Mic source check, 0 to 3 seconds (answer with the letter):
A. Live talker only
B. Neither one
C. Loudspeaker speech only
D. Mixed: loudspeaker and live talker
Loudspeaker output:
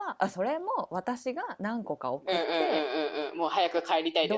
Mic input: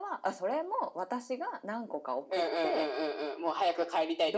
C